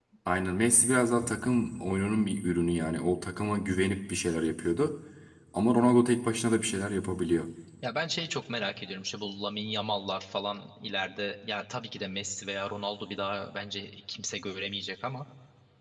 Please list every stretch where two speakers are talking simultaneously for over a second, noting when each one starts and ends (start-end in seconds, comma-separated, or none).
none